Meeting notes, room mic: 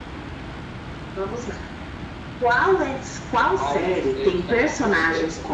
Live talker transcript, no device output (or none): none